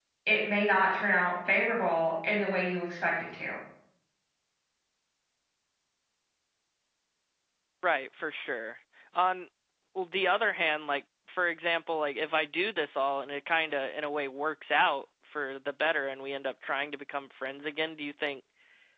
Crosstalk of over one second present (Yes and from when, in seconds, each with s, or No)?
No